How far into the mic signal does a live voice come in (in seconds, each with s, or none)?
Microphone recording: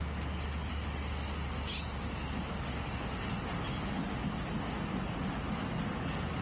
none